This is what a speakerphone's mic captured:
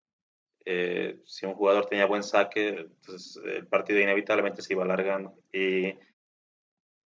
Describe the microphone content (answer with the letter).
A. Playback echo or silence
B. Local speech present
B